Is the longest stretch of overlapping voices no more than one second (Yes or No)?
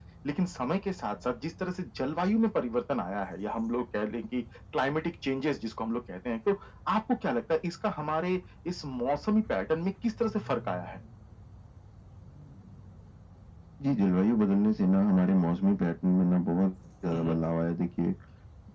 Yes